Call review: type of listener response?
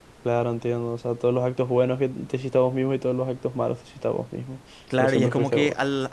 taking over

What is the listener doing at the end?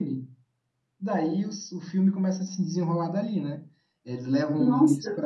listening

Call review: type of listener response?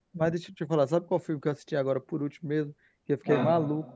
listening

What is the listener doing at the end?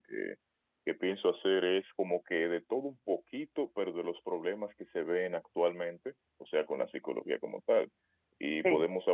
listening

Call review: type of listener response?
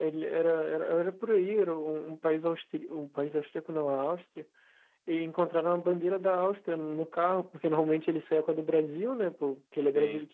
listening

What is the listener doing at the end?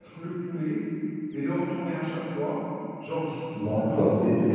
taking over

